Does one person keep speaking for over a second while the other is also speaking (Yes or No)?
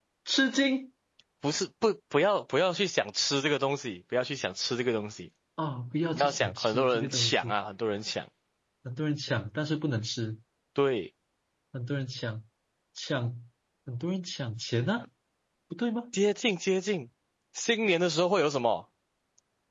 Yes